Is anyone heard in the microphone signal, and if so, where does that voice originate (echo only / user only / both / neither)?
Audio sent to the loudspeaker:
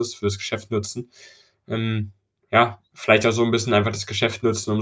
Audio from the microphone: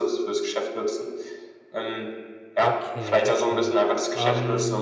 both